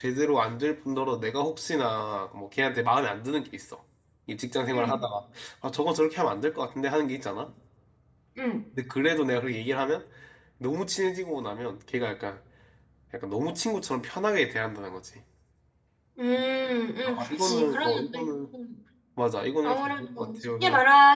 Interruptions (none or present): present